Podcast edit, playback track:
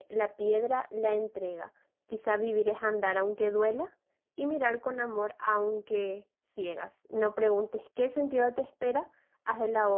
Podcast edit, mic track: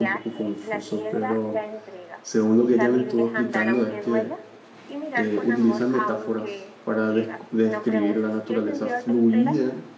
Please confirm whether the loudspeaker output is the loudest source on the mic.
No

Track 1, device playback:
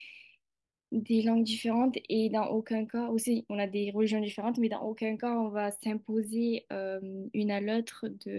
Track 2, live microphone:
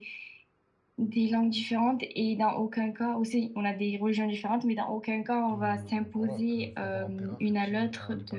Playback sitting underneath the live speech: No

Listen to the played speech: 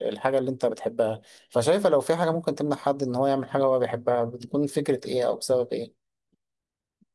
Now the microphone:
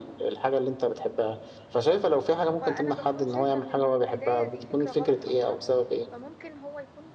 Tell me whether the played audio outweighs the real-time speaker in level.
Yes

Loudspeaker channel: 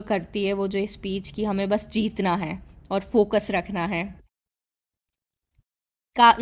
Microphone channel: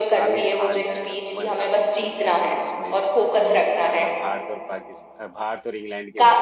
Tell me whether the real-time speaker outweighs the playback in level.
No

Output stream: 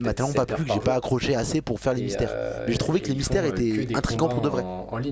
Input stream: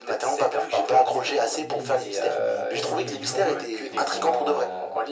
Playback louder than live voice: Yes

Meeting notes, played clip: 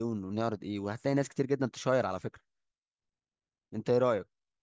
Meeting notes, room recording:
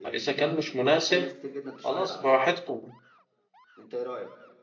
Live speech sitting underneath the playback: No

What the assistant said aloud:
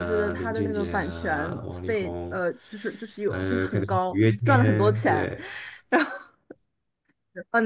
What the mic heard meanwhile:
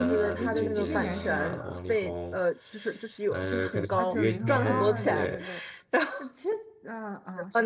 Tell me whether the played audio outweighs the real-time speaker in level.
Yes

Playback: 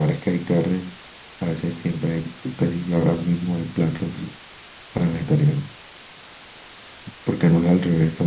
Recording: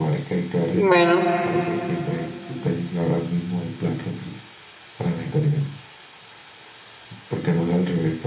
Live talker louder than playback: Yes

